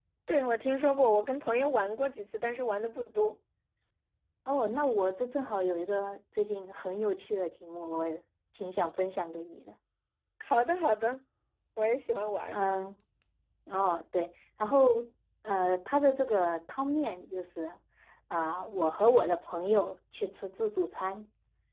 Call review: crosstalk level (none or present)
none